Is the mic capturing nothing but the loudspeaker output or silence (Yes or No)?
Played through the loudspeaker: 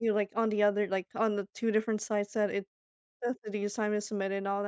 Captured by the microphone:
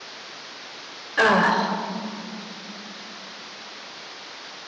No